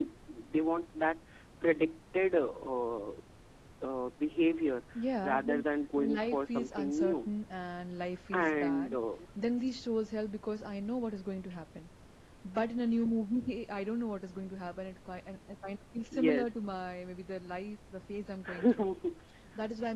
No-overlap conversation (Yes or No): No